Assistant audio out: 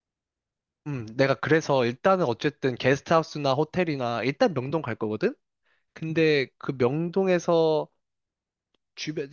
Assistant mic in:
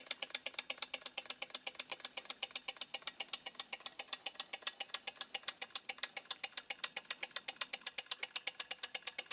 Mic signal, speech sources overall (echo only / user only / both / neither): neither